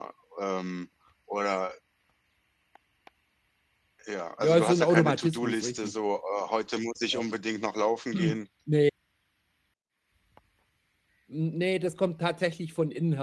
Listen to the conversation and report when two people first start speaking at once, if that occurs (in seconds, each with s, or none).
4.4 s